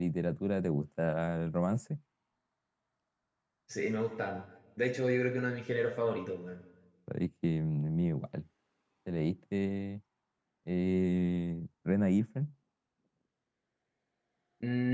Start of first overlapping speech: none

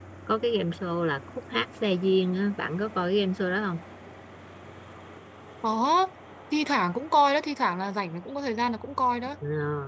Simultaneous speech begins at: none

